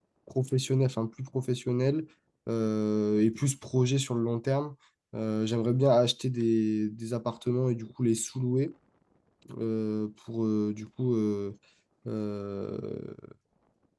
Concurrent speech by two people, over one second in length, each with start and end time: none

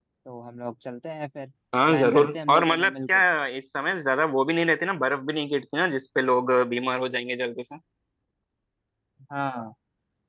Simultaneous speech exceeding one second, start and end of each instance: 1.9-3.2

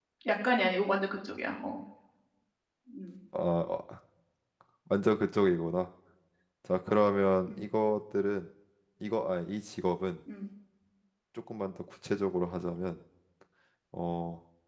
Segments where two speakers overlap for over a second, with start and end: none

